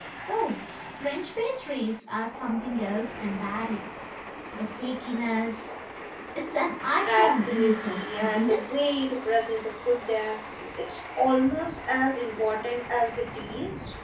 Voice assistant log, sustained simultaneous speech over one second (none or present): present